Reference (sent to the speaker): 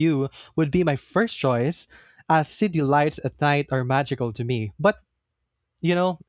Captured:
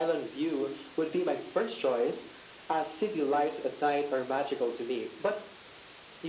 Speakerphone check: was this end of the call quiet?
Yes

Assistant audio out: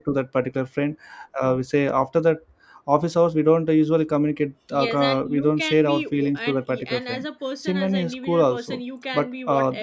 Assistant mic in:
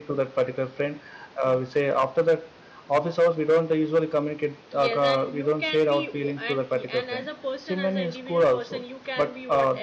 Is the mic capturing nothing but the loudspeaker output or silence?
Yes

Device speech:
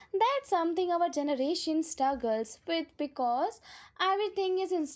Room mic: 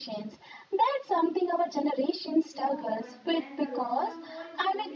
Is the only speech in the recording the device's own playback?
No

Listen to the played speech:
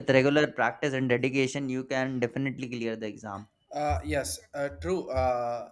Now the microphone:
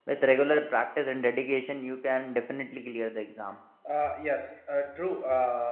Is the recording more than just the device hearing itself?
No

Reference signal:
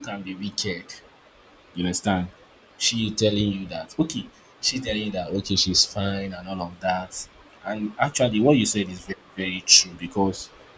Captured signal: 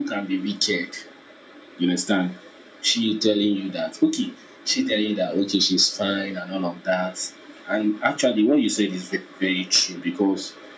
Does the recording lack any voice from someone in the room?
Yes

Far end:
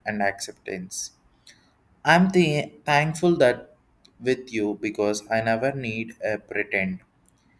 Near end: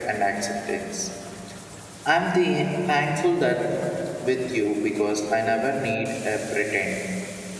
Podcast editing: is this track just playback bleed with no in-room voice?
Yes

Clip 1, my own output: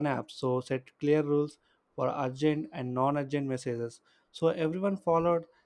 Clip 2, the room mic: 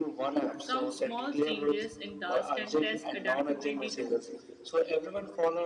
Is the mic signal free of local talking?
No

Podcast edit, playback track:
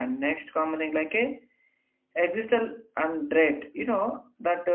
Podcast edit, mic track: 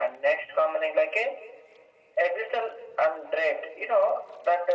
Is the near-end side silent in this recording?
Yes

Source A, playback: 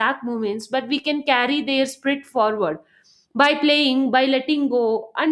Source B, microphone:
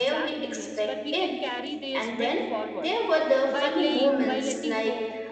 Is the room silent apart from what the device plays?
No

